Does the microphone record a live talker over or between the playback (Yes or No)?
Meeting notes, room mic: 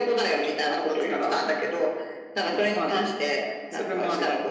No